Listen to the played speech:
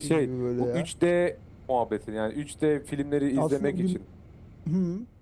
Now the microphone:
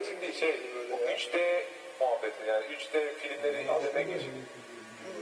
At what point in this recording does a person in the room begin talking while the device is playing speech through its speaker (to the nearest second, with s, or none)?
3 s